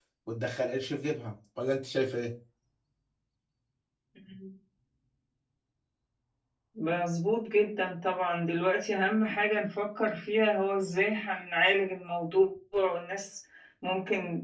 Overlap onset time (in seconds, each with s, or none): none